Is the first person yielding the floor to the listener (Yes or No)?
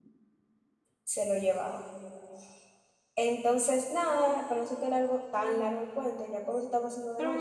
Yes